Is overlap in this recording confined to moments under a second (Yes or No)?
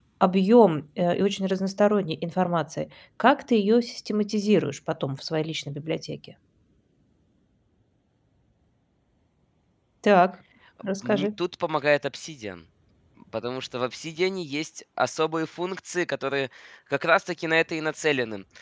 Yes